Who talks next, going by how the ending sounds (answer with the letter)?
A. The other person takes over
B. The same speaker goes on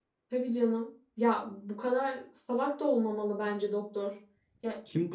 A